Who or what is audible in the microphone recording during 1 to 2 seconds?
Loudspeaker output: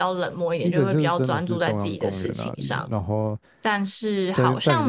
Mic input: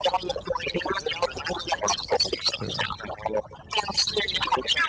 echo only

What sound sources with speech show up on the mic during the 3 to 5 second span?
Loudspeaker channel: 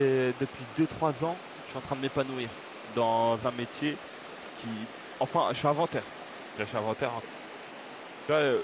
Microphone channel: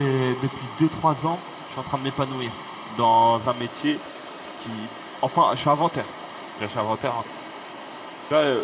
echo only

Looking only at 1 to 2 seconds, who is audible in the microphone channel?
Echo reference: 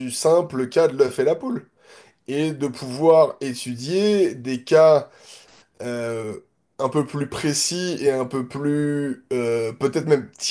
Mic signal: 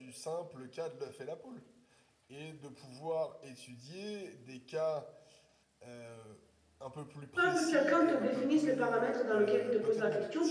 echo only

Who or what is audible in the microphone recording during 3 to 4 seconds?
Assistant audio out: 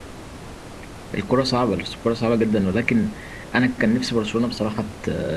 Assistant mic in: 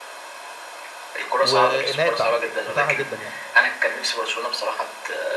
both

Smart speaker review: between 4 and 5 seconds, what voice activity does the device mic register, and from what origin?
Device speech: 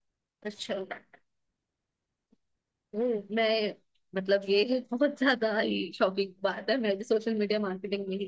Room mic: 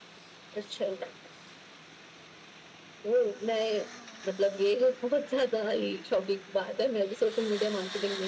echo only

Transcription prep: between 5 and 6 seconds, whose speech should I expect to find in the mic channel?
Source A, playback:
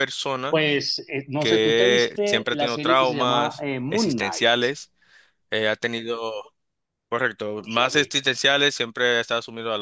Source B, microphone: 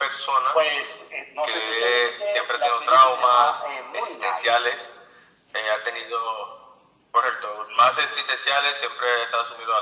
echo only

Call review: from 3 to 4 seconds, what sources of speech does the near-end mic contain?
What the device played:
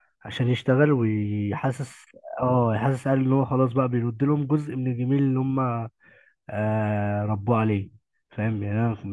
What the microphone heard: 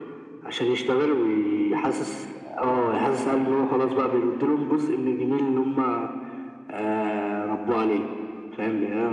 echo only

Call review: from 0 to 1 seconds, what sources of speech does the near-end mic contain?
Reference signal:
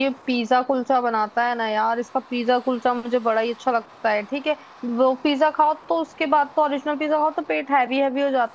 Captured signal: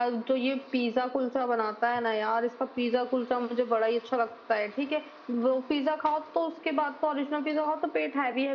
echo only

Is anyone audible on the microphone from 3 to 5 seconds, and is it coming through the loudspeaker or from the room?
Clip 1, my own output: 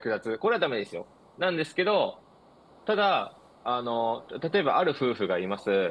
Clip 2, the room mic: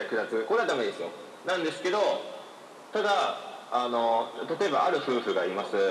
echo only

